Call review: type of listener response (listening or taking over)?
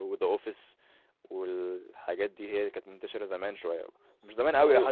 listening